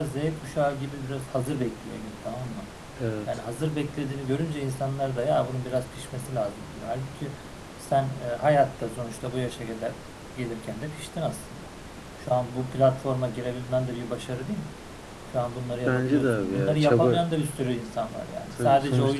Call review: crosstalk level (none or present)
present